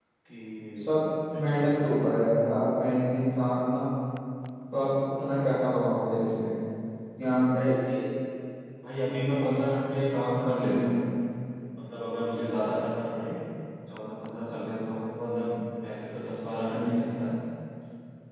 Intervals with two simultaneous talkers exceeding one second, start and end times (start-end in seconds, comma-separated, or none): none